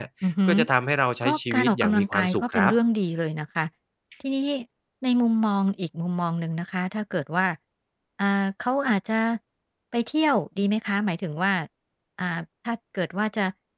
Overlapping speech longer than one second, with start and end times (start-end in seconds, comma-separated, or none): 1.2-2.7